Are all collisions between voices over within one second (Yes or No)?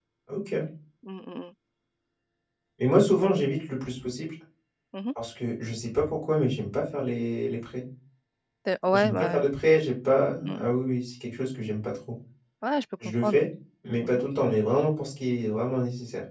Yes